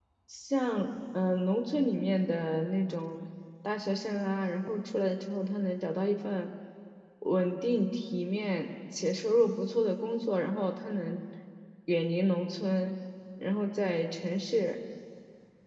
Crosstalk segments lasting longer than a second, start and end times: none

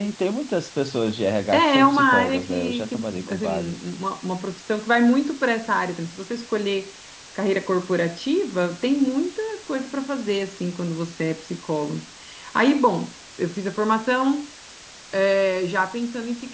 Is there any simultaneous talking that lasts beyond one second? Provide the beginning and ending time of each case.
1.5-3.7

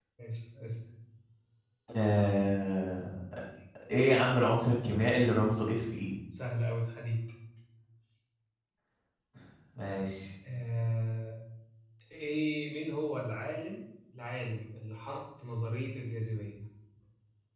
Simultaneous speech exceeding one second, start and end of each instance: none

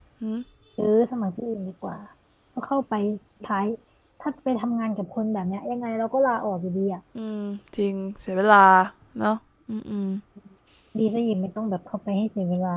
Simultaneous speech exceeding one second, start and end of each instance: none

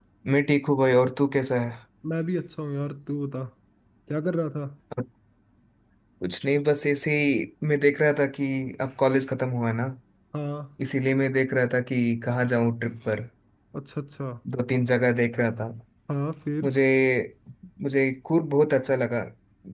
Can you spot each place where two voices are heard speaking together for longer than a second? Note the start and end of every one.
none

